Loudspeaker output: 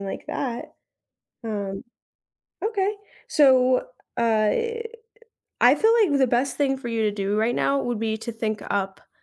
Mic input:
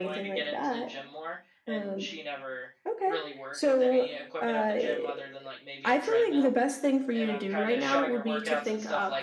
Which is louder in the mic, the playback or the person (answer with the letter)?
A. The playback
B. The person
A